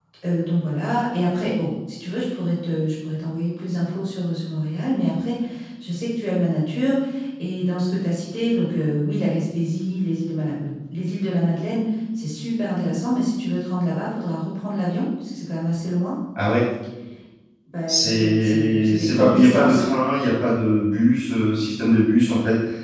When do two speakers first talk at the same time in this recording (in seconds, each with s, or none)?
17.9 s